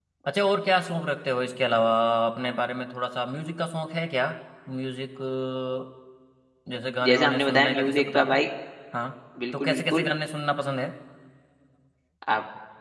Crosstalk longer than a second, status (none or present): present